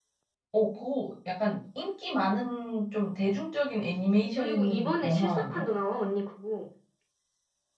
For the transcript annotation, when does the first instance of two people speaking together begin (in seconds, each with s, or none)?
4.2 s